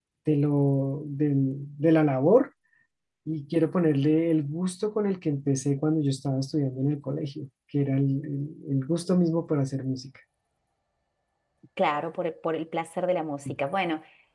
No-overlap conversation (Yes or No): Yes